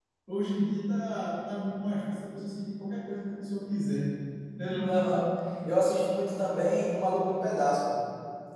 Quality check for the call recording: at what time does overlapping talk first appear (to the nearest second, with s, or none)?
none